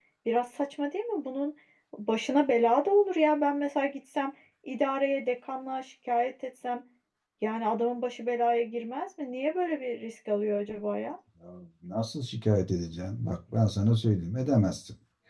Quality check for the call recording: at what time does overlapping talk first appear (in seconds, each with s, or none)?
none